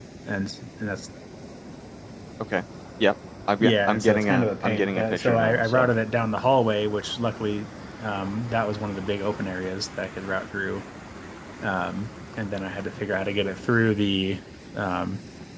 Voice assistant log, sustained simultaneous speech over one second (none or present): present